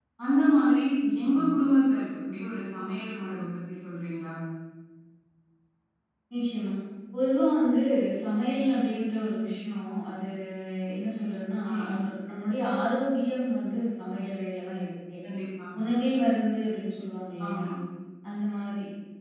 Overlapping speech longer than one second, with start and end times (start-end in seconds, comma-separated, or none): none